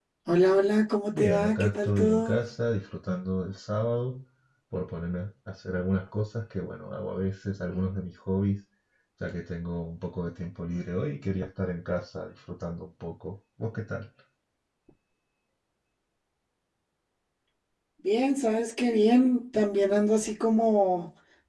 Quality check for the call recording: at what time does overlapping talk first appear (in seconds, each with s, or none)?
1.1 s